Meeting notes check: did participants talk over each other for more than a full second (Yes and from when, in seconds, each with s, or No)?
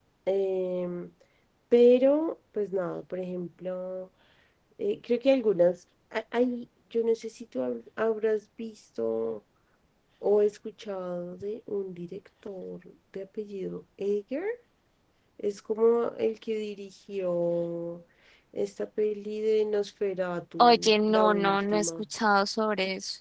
Yes, from 20.6 s